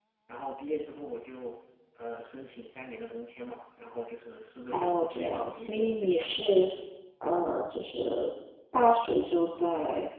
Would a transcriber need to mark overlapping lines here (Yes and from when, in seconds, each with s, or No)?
Yes, from 4.7 s